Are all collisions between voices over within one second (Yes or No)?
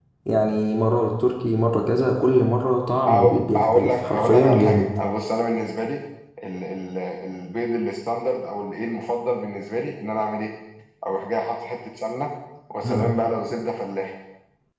No